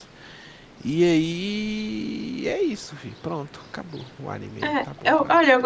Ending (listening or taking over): taking over